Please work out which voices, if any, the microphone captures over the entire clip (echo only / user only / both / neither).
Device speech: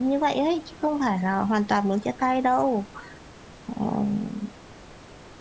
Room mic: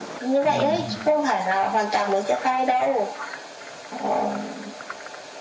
both